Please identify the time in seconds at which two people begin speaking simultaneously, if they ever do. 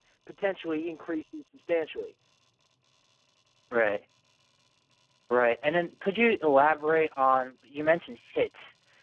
none

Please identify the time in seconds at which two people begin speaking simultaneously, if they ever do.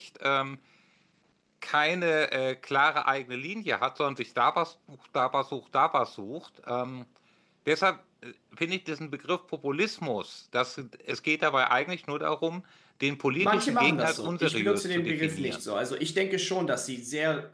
13 s

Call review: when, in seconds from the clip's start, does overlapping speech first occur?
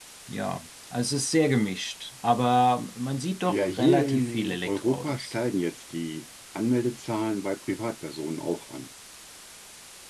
3 s

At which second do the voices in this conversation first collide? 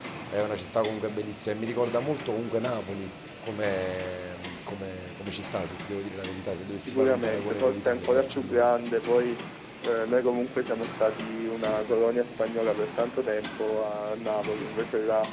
7 s

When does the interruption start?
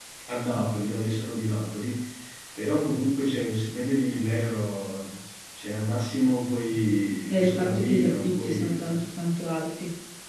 7 s

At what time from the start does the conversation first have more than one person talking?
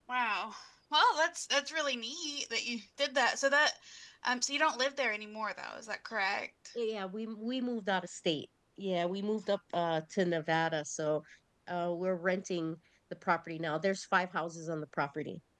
none

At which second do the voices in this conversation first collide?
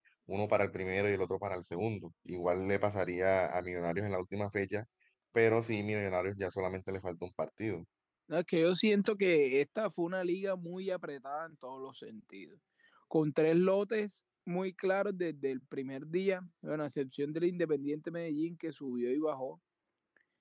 none

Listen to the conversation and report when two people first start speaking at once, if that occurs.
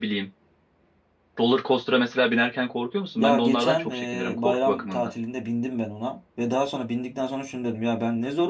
3 s

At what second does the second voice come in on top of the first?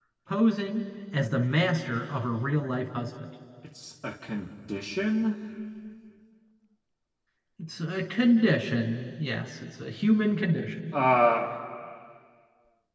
none

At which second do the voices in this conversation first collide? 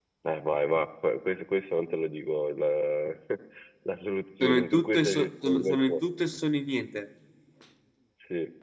4 s

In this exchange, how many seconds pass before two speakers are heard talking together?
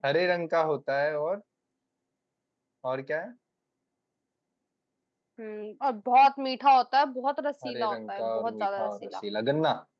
8 s

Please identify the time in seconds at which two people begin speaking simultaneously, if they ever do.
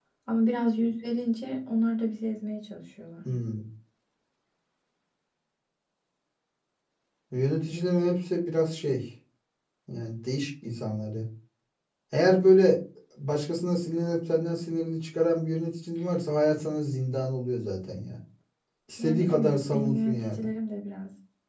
19 s

